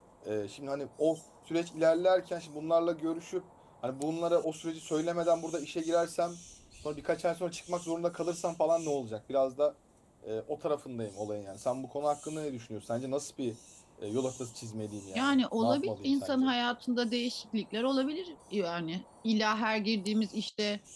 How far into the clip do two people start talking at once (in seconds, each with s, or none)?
15.1 s